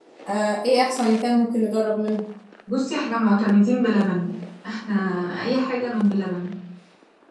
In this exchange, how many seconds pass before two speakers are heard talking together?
none

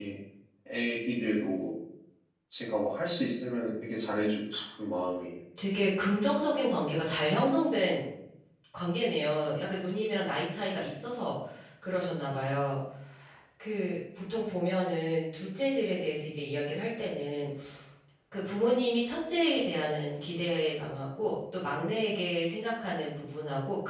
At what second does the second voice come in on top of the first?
none

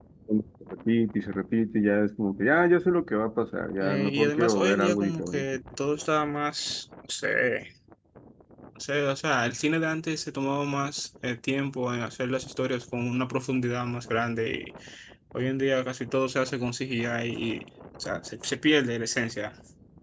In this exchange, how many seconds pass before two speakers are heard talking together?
3.8 s

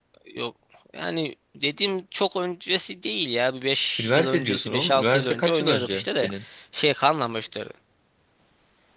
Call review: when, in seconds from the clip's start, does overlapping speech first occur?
4.0 s

